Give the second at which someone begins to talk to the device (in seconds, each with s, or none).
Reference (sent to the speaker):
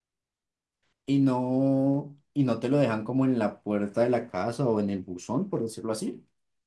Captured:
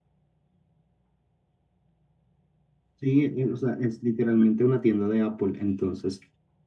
2.9 s